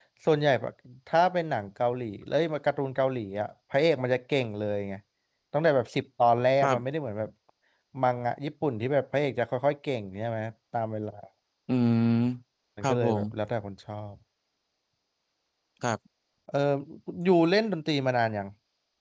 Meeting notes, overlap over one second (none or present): none